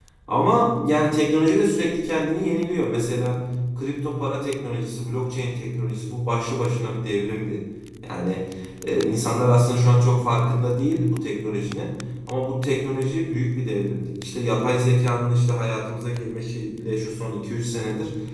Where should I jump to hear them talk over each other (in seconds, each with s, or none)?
none